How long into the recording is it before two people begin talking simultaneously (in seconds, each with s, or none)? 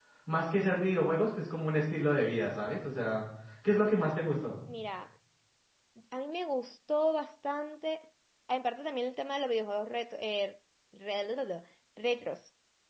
none